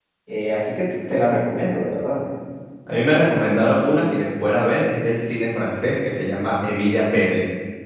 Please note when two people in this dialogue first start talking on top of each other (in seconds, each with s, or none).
none